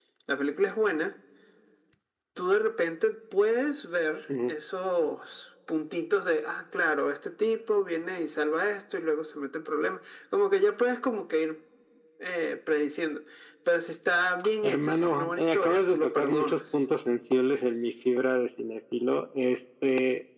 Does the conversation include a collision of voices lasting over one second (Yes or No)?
Yes